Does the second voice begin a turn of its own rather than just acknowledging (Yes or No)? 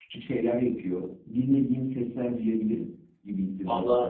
Yes